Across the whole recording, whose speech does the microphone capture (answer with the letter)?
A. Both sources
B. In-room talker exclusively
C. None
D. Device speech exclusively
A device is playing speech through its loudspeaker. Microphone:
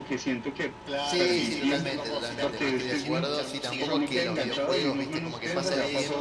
A